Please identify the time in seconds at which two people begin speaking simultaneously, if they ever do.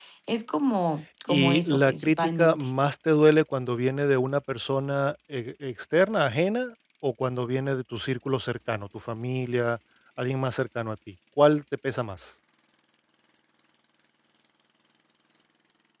1.3 s

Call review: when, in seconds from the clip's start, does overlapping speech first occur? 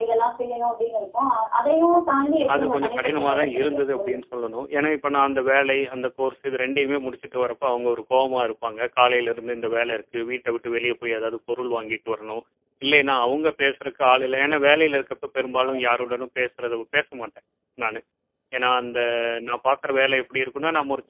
2.5 s

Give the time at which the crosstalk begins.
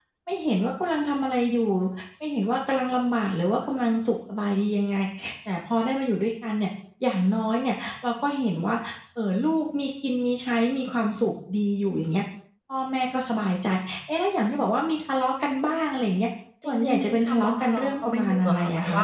16.6 s

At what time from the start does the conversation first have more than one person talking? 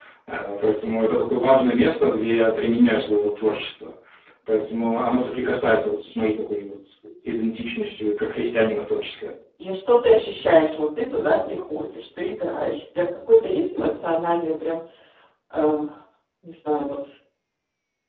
none

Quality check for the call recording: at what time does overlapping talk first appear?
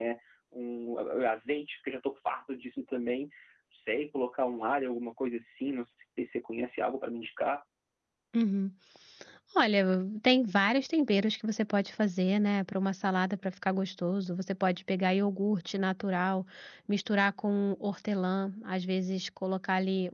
none

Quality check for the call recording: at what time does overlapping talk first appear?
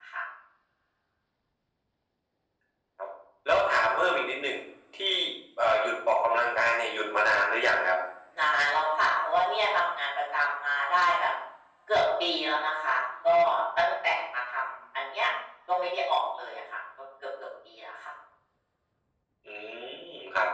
none

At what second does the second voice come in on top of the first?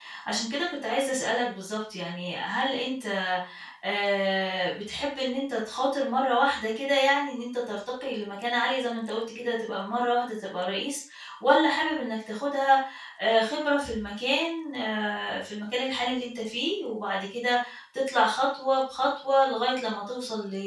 none

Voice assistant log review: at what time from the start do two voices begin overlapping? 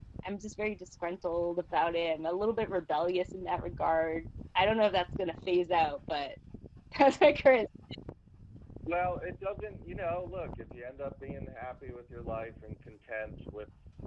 none

